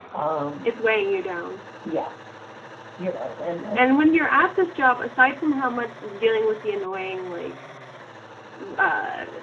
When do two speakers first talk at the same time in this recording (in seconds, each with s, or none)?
none